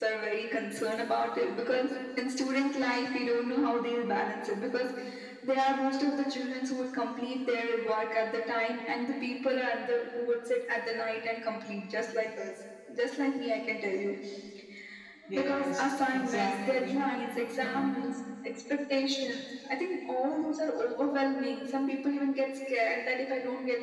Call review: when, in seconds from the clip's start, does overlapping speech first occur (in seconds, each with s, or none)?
15.3 s